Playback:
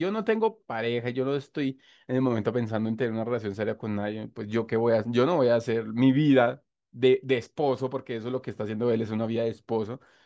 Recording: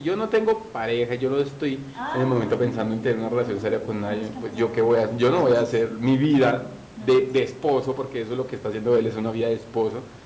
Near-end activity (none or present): present